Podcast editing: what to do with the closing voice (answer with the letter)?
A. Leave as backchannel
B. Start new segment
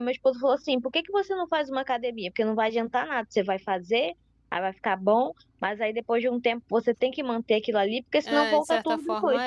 B